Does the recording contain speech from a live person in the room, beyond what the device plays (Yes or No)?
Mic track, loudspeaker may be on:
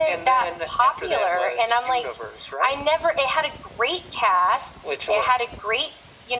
No